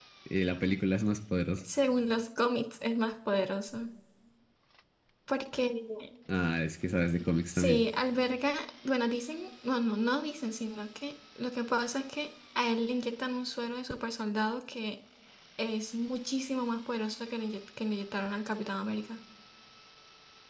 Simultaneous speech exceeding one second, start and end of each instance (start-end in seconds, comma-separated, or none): none